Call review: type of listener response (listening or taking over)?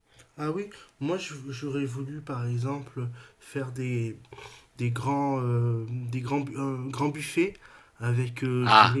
listening